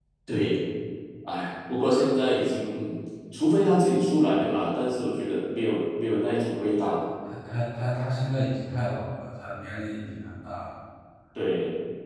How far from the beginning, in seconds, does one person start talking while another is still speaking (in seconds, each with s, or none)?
none